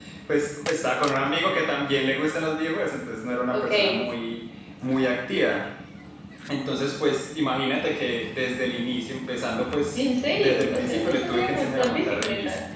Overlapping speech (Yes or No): Yes